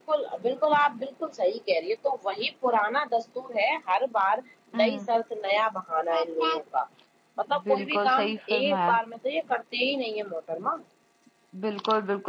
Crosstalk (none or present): present